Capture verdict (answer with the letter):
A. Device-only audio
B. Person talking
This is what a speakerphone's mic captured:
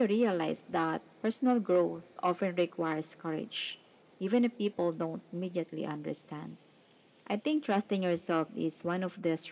A